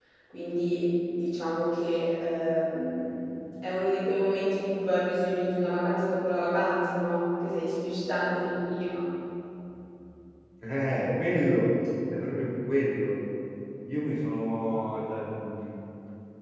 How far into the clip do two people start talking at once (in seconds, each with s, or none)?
none